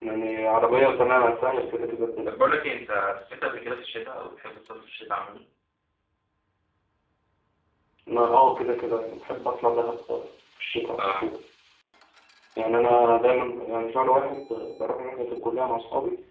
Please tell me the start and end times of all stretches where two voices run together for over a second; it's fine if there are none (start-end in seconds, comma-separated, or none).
none